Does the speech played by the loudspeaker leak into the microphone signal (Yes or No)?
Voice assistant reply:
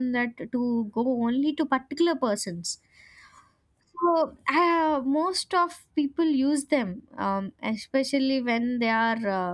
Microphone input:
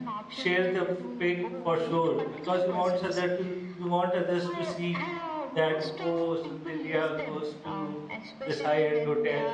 Yes